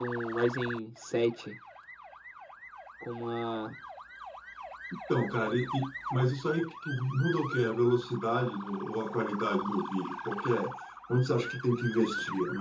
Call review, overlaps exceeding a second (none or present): none